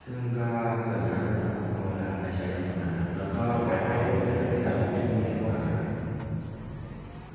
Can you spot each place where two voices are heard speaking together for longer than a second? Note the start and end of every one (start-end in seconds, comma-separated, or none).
3.5-5.8